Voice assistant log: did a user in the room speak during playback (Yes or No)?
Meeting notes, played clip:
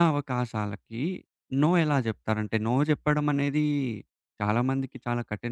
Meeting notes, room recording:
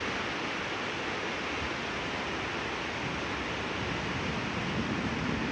No